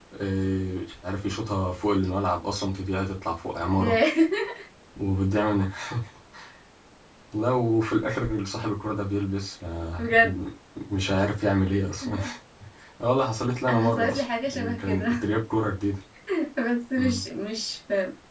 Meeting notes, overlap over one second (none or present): present